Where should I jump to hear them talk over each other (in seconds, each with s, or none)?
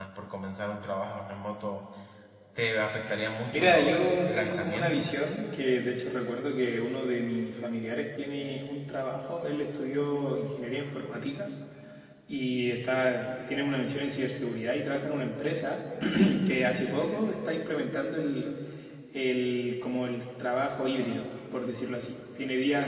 3.5 s